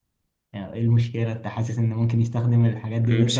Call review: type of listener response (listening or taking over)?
taking over